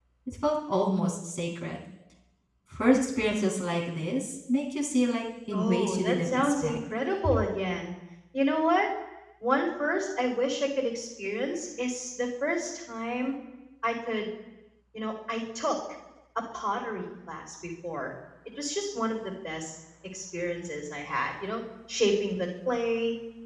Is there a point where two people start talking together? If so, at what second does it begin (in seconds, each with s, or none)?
5.5 s